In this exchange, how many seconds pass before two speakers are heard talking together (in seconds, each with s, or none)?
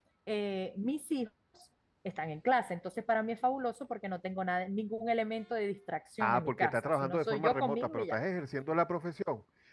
6.2 s